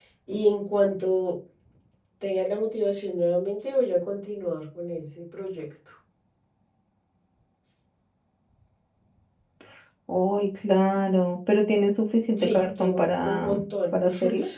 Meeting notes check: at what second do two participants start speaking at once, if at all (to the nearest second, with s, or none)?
12 s